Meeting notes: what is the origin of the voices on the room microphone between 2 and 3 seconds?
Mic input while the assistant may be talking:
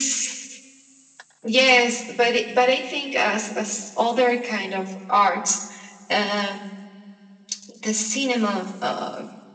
echo only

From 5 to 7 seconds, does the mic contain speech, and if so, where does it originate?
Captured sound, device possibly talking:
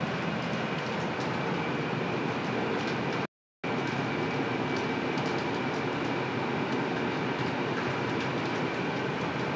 neither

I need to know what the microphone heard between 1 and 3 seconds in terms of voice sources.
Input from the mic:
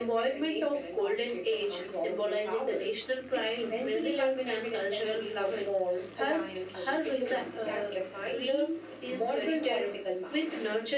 echo only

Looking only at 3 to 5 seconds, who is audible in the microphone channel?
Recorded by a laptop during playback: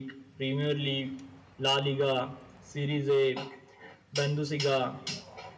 echo only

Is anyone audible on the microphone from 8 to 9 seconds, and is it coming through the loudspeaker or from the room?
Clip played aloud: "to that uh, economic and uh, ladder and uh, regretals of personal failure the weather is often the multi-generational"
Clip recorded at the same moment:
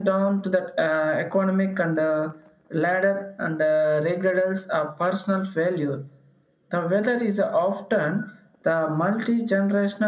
echo only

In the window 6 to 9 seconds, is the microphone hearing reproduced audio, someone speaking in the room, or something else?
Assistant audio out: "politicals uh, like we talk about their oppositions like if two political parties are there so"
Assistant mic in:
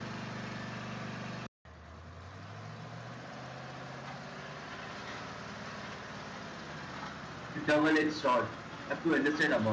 user only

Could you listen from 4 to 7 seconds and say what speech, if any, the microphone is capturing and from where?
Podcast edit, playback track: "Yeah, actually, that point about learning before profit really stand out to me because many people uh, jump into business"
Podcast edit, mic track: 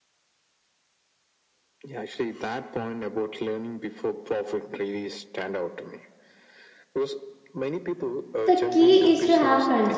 echo only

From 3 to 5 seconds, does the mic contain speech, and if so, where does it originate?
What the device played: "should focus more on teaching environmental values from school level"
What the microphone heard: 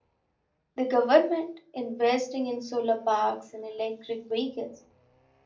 user only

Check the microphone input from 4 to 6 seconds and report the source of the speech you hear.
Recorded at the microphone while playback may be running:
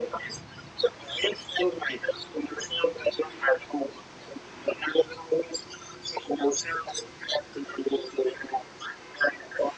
echo only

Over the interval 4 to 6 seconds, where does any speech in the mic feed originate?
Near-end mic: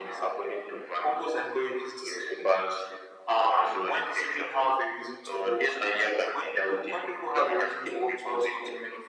echo only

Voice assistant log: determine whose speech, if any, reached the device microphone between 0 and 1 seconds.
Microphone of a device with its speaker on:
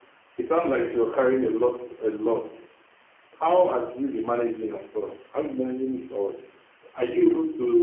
echo only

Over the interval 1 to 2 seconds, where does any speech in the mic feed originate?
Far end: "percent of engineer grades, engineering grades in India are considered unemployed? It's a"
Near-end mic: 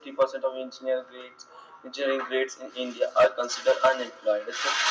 echo only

